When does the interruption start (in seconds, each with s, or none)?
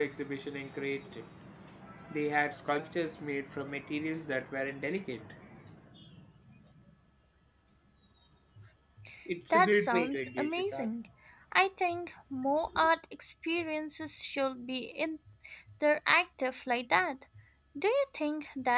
9.5 s